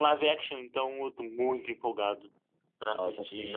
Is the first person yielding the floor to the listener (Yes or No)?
Yes